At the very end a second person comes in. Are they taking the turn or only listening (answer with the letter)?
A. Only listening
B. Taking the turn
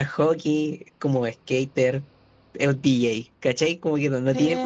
B